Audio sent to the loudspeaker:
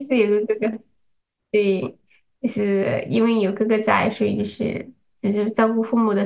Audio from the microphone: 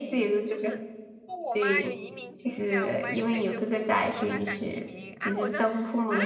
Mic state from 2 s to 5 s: both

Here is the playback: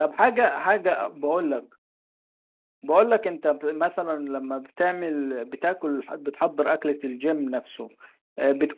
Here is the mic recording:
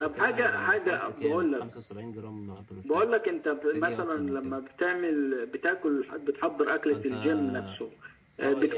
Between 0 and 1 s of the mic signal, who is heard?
both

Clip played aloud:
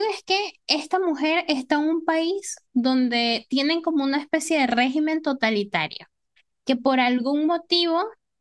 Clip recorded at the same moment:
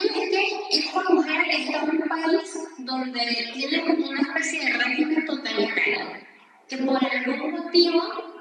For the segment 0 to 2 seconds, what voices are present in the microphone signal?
echo only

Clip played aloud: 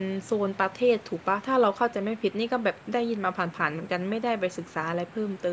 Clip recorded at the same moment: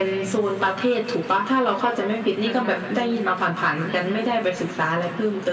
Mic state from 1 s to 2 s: echo only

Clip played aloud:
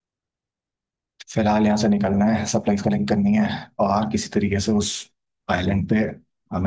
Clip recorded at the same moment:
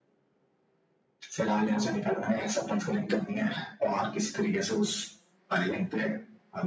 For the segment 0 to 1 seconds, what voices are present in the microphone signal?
neither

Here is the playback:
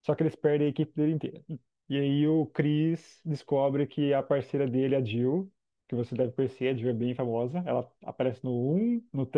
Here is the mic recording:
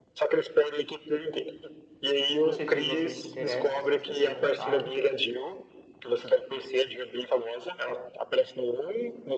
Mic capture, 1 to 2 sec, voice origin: echo only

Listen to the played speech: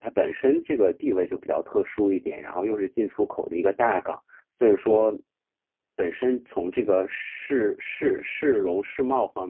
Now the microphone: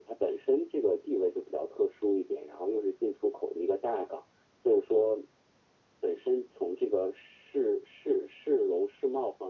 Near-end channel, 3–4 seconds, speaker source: echo only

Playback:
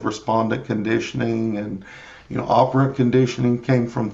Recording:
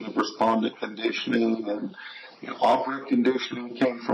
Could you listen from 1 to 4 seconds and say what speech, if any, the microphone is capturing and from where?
echo only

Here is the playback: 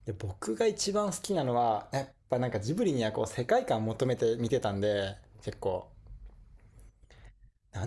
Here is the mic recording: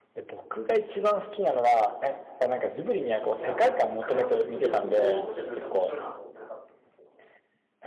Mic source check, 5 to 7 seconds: both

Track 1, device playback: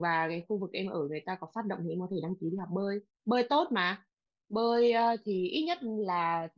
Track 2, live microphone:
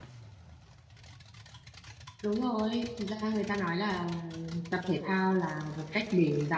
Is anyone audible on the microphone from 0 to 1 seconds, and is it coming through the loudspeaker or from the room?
neither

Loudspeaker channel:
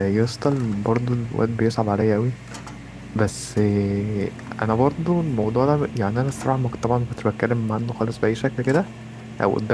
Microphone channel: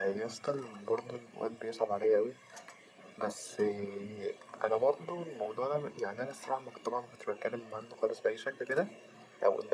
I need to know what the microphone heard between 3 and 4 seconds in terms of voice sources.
echo only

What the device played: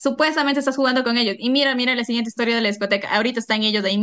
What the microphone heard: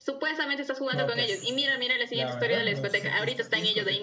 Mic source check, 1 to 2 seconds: both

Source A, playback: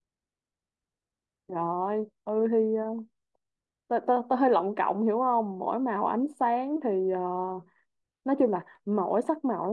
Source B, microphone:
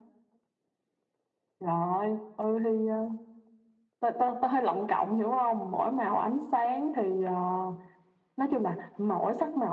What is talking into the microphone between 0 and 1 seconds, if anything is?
neither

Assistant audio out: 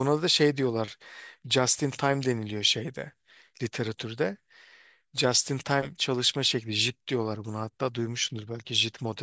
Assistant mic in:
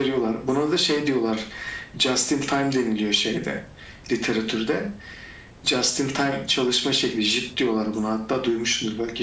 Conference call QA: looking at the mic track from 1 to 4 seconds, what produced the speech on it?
echo only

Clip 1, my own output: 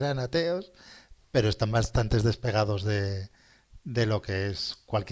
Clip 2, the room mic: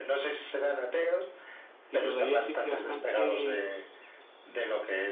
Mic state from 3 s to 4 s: both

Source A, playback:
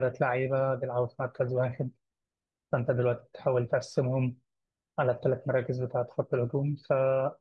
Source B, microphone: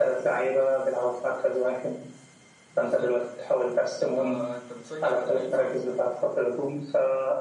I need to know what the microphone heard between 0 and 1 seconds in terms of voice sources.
echo only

